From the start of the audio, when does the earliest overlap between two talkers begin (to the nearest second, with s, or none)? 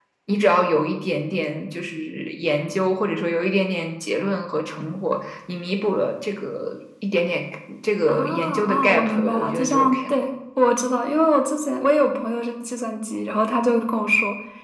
8 s